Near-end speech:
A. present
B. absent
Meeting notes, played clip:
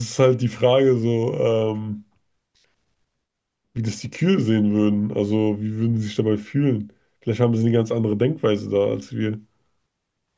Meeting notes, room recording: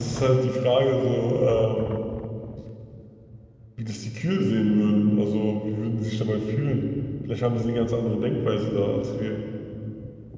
B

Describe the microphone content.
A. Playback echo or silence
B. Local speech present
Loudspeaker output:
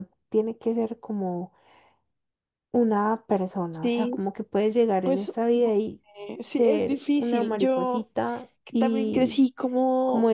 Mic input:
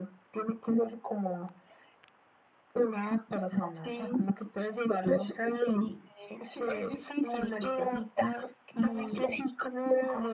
A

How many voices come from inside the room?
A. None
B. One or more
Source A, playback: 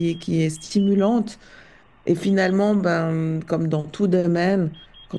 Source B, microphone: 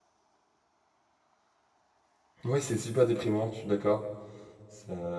B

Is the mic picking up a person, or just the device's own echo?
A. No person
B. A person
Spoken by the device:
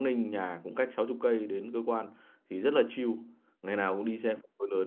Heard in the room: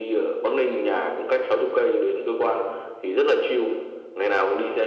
A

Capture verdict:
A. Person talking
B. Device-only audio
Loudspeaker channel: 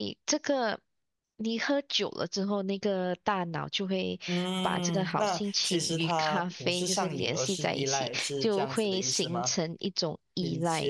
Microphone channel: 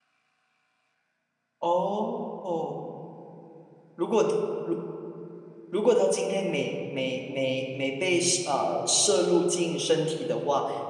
A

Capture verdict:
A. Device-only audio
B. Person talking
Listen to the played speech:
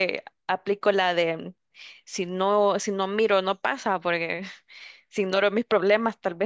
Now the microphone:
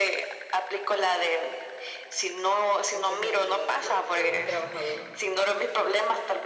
B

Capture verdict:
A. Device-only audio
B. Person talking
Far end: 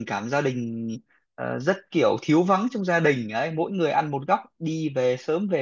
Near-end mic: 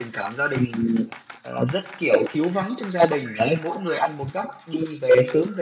A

